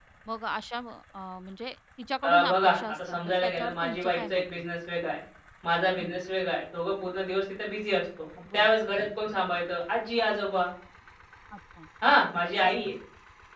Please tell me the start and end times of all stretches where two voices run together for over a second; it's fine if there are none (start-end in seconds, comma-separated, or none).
2.2-4.7